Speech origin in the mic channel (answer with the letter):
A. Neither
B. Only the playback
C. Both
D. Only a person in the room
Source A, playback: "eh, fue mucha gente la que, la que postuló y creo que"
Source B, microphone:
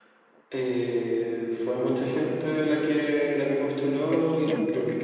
C